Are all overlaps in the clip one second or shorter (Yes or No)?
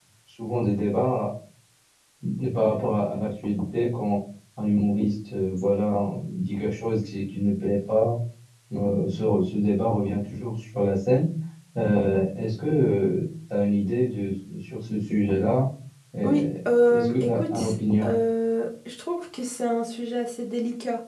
No